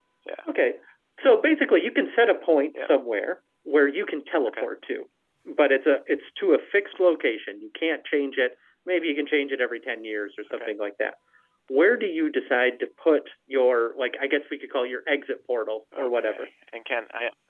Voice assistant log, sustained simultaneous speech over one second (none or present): none